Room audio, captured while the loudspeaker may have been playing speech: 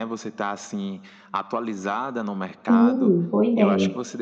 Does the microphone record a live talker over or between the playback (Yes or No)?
Yes